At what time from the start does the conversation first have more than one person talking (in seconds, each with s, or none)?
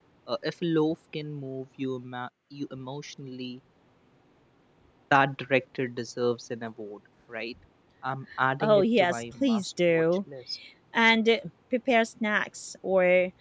8.6 s